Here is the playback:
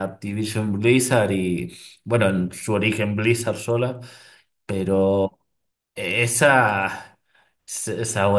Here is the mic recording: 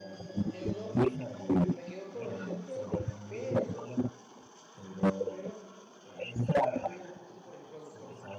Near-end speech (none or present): present